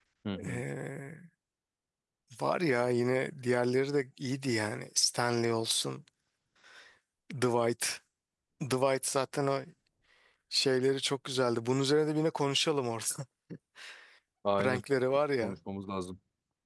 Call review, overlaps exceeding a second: none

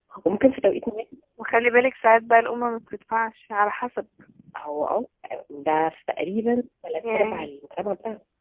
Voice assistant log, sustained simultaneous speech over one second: none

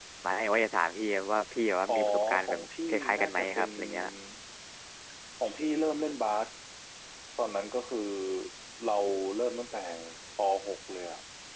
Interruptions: present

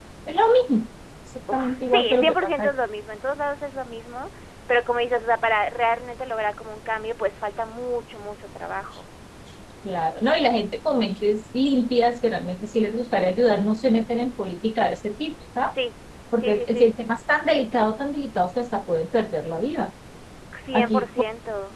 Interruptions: present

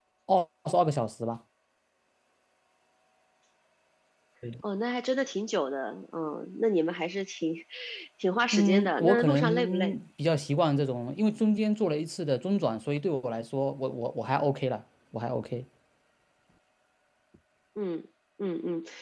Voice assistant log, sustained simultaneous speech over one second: present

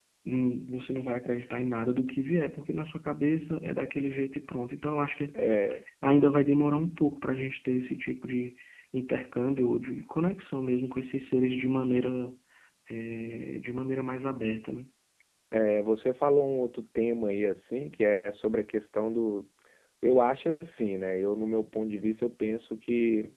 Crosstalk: none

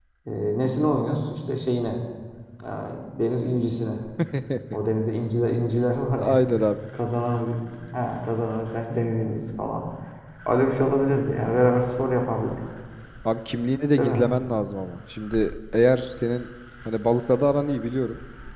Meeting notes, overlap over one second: none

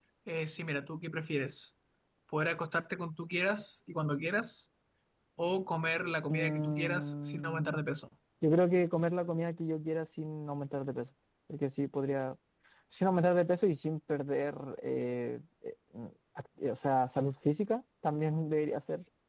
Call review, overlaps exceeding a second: present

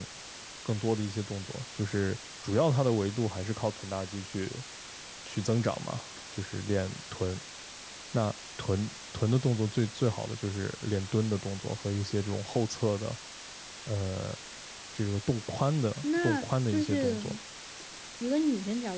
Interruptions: present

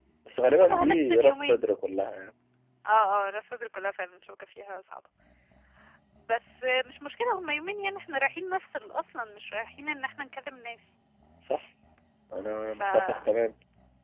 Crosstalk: present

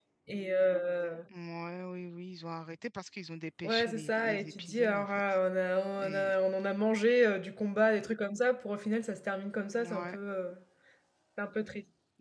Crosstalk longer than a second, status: present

